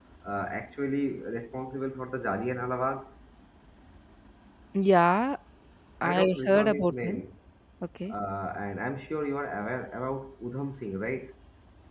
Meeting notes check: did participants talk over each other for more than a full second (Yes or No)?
Yes